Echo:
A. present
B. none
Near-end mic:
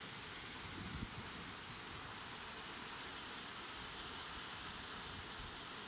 B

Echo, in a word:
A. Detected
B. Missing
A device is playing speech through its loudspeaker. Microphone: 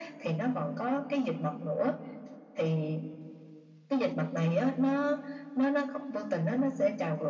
A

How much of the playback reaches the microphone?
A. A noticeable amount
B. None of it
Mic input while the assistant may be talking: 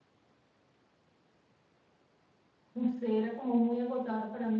B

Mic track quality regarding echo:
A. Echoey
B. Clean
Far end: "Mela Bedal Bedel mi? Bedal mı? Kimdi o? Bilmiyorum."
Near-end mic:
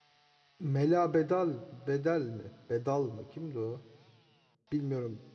A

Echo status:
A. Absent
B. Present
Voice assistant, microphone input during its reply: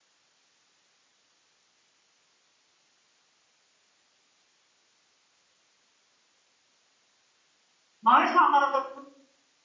A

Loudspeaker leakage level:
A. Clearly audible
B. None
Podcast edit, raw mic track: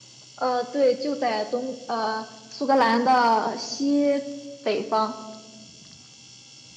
A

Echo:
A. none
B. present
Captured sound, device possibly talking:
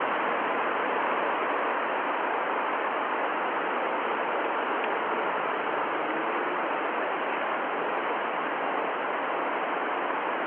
A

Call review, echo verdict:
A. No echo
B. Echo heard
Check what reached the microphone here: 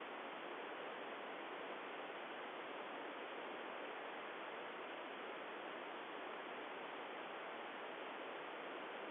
A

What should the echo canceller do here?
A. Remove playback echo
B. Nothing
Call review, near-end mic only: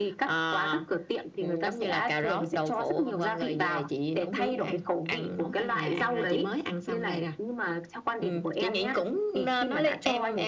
A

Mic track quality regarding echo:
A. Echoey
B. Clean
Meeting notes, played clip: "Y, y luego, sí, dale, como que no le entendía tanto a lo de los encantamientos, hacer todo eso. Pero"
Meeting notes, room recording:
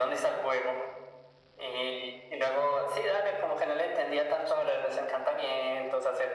A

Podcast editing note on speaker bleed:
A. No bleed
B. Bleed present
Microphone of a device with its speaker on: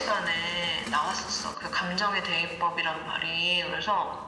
B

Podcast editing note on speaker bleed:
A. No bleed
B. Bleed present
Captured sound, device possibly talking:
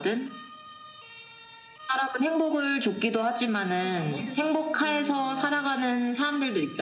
B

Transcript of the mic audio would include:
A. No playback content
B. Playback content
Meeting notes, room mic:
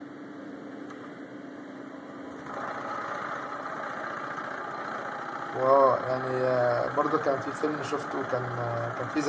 A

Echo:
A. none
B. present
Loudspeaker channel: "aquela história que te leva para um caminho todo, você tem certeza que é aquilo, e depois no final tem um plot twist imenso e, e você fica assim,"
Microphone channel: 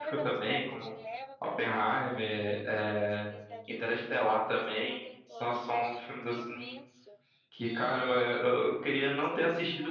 B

